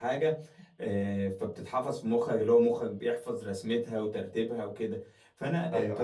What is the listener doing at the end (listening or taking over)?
listening